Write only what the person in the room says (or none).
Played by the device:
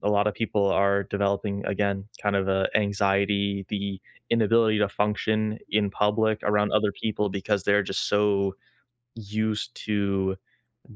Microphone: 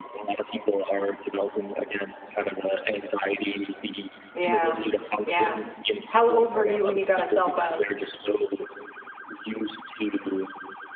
Yeah, yeah. How old were you when you got a cell phone?